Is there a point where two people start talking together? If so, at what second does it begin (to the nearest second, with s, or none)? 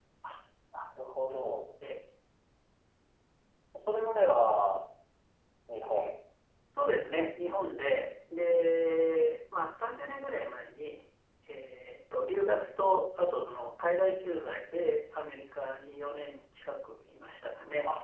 none